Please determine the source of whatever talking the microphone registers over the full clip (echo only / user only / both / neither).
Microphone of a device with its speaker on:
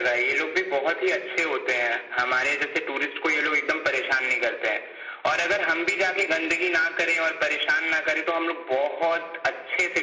echo only